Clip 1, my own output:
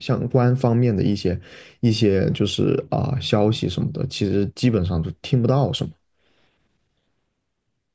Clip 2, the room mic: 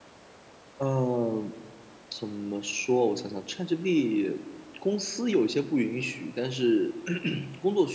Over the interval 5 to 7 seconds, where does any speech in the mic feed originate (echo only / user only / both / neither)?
user only